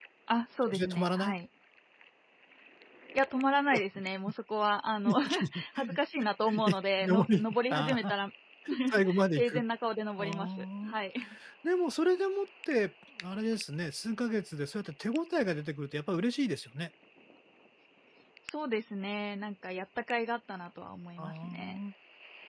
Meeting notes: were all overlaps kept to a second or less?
No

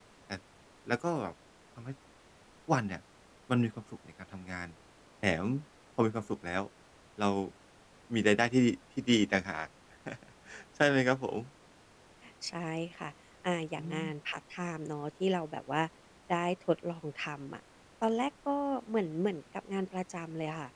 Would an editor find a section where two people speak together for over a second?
No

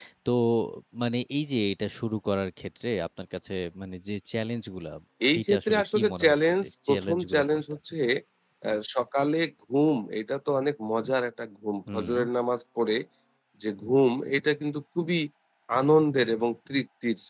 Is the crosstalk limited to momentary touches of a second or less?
No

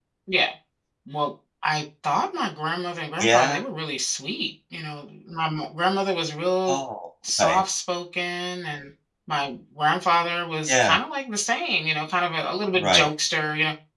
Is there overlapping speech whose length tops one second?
No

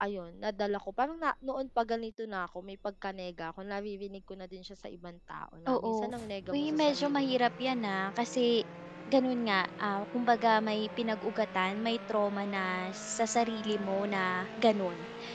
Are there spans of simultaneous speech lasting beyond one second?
Yes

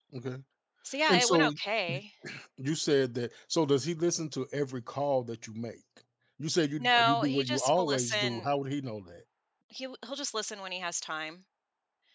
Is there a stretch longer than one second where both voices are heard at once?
Yes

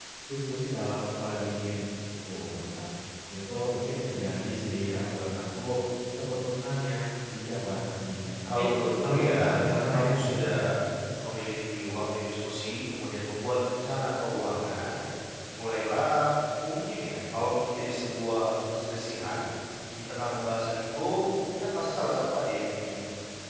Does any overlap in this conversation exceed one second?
Yes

